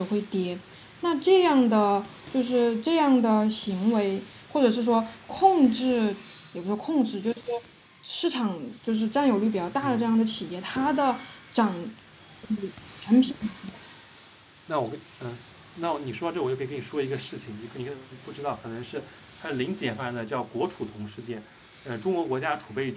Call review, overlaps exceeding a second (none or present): none